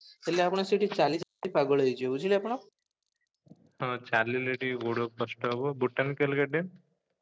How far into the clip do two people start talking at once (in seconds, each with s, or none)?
none